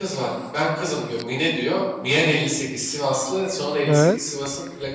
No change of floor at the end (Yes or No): Yes